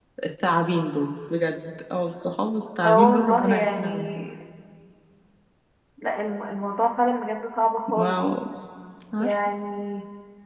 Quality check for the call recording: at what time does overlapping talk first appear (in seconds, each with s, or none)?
2.8 s